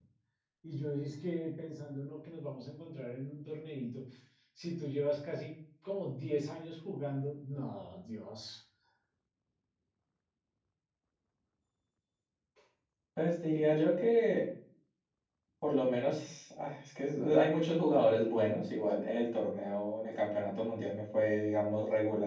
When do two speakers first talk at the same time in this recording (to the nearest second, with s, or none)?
none